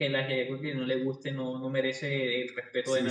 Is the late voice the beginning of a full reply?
Yes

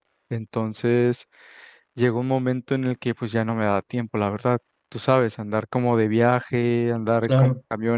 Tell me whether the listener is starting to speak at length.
No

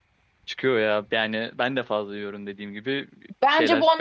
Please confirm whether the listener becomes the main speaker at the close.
Yes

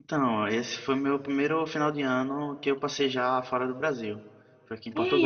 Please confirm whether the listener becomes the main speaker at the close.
Yes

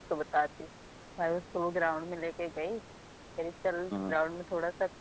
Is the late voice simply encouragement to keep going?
Yes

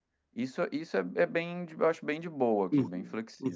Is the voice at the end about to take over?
Yes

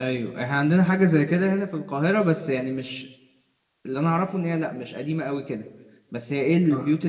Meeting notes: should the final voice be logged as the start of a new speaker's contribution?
No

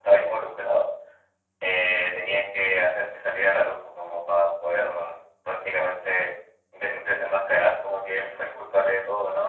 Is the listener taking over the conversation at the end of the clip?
Yes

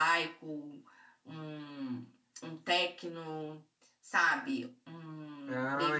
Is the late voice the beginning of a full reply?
Yes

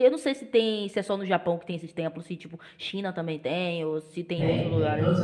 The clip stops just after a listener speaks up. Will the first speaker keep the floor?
No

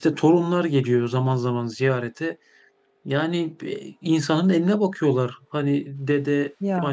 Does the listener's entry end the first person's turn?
No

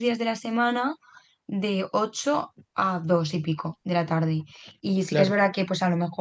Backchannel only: Yes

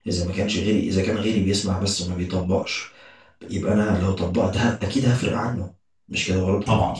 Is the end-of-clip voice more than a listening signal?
Yes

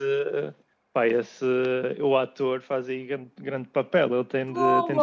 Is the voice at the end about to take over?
No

